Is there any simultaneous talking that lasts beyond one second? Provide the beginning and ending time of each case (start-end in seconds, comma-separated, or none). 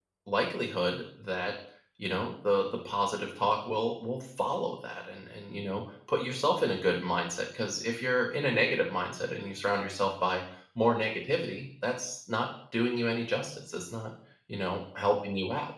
none